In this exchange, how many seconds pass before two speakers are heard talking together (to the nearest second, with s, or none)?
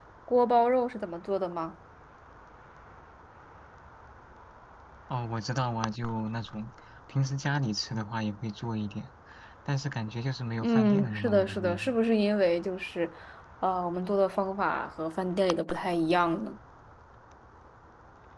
11 s